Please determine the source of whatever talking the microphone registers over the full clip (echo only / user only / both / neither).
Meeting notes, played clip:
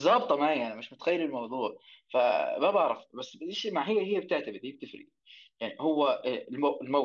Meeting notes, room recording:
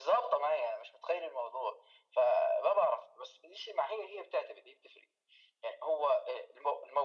echo only